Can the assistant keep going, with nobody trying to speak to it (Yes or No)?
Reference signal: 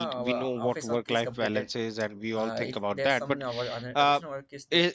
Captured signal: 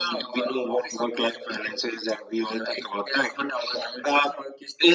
Yes